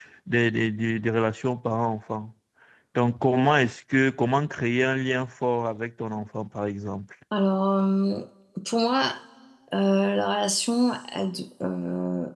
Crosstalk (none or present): none